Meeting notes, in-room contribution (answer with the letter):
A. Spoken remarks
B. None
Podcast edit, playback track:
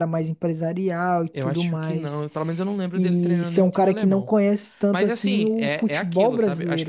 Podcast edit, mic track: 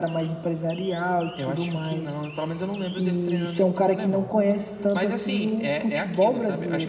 B